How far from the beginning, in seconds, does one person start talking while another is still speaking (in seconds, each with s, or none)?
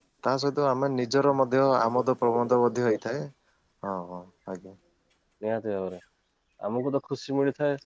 none